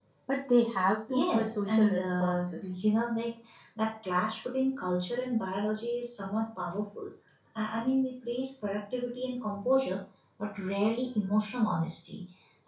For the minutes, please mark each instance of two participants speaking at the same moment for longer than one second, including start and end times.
1.1-2.8

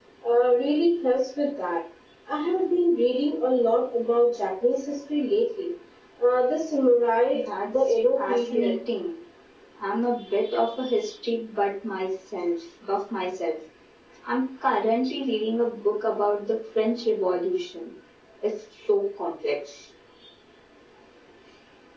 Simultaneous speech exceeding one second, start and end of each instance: 7.3-8.7

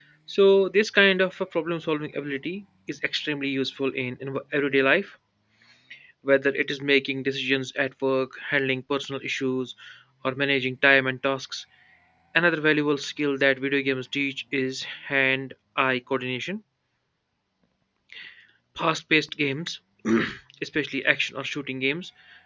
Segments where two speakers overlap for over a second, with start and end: none

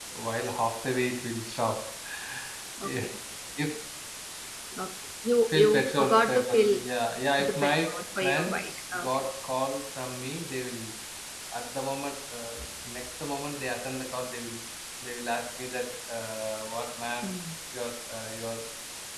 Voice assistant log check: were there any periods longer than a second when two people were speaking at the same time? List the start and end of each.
5.5-6.7, 7.4-9.2

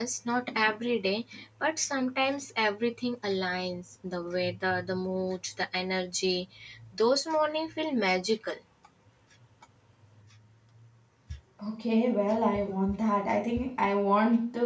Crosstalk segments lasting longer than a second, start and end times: none

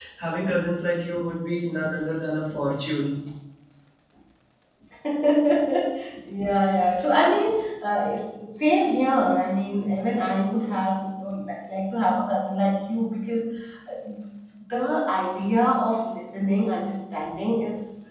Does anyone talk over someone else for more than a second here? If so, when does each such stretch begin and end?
none

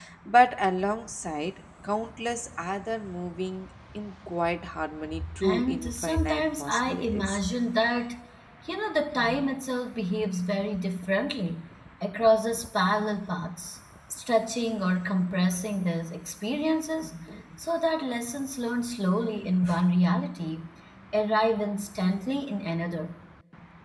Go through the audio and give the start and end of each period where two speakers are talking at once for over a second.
5.4-7.4

